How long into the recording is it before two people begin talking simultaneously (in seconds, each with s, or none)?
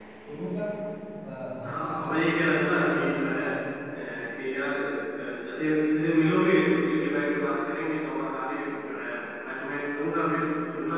1.6 s